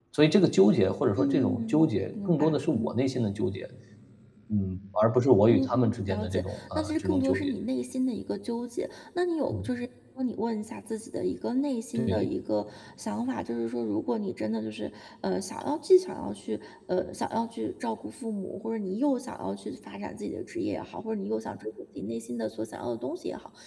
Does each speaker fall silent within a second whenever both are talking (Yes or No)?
No